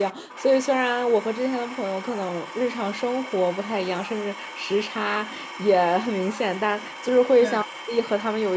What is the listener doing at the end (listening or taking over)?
listening